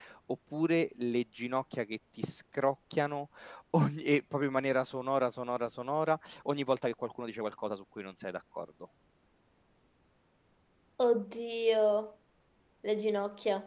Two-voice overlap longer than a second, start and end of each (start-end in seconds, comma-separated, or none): none